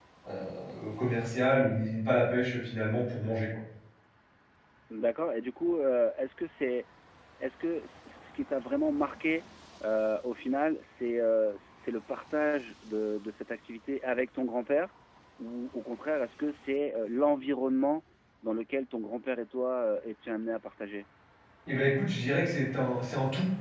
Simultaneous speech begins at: none

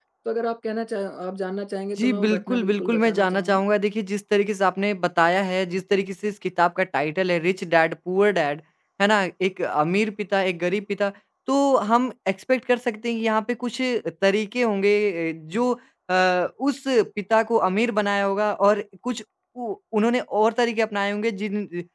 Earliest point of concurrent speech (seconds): 2.0 s

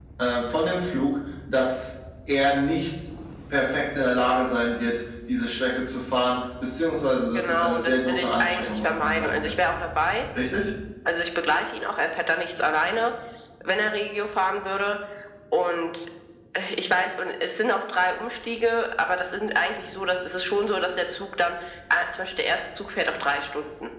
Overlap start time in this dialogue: 7.3 s

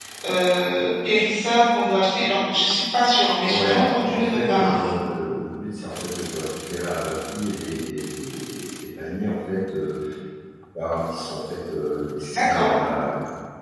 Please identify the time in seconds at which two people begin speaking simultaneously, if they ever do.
3.4 s

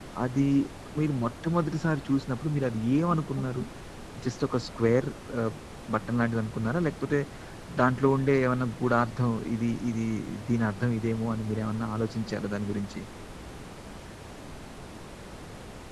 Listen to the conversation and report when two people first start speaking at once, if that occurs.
none

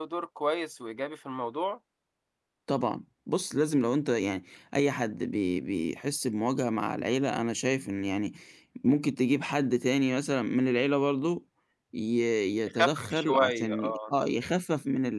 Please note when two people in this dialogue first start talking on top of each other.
12.7 s

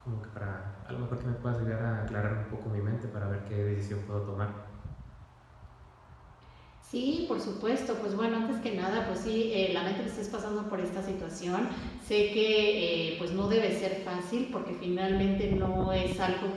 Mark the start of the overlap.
none

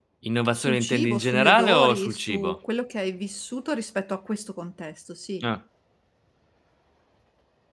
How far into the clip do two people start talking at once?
0.5 s

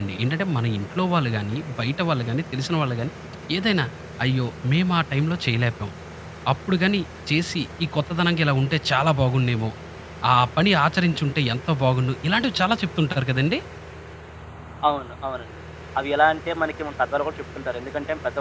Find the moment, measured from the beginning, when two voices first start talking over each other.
none

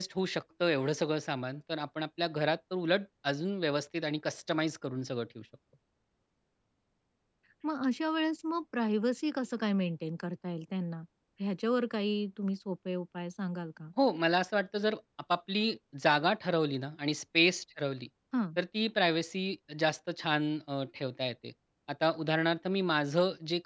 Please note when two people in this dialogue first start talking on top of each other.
none

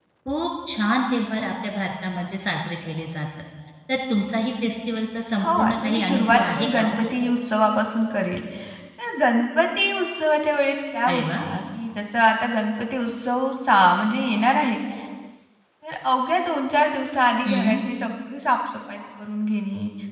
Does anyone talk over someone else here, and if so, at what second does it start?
5.4 s

